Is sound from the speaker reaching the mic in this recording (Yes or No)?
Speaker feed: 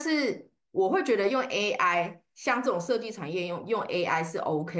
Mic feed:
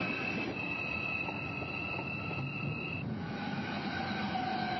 No